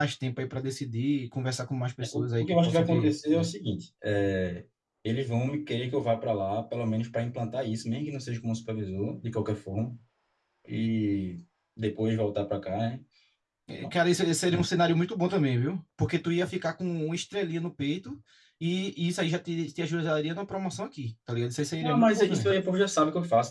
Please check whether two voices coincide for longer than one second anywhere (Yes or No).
Yes